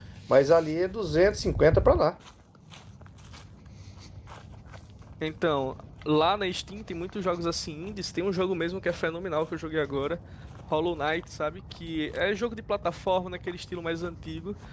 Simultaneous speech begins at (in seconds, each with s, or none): none